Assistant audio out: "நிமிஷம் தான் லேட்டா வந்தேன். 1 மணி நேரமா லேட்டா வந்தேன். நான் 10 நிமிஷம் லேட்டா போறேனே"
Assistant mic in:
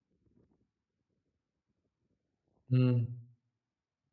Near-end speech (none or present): present